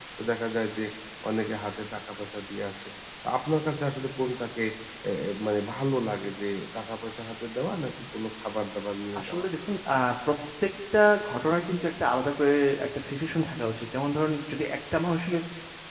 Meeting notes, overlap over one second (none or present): none